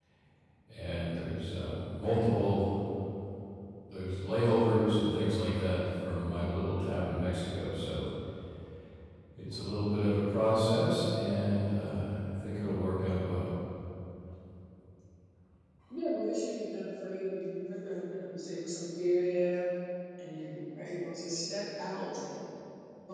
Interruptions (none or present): none